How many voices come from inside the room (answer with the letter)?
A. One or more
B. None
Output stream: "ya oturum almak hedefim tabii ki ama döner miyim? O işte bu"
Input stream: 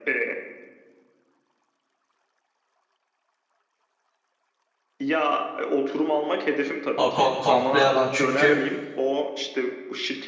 A